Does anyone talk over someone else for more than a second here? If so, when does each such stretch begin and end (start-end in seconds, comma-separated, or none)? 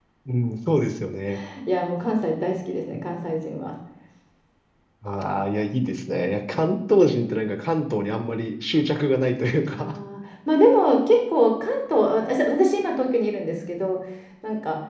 none